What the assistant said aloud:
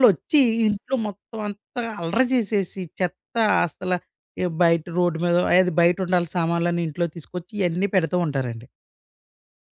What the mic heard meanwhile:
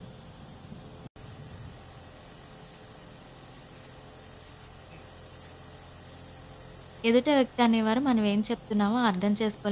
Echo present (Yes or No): No